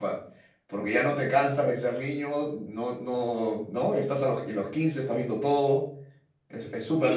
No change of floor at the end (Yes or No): No